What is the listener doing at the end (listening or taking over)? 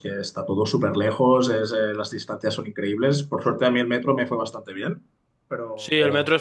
taking over